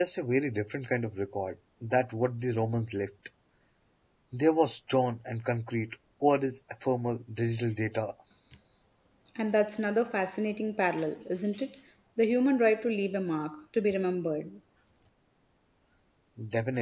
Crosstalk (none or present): none